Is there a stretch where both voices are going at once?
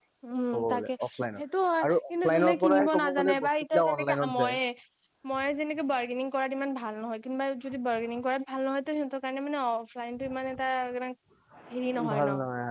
Yes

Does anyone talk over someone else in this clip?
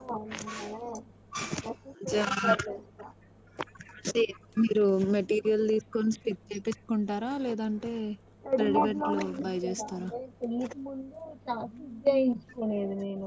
Yes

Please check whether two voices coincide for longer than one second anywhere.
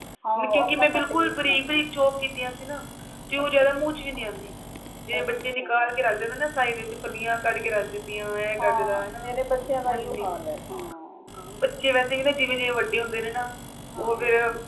Yes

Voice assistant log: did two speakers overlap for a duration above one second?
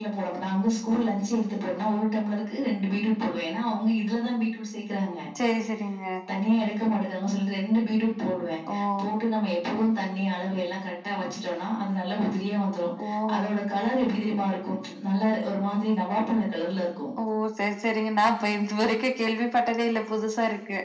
No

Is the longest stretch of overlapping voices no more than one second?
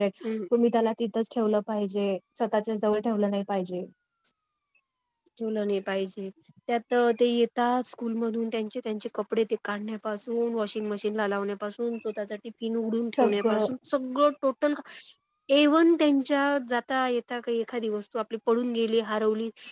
Yes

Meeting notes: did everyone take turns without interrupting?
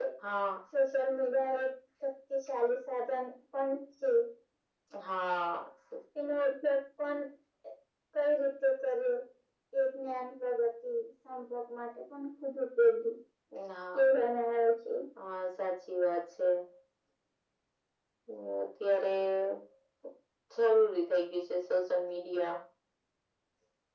Yes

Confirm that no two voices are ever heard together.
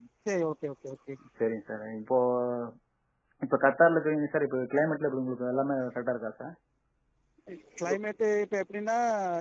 Yes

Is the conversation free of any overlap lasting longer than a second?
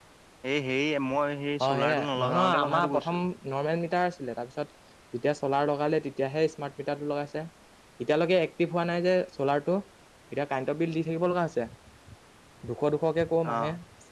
No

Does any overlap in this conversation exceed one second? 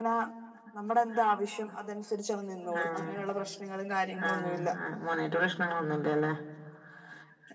No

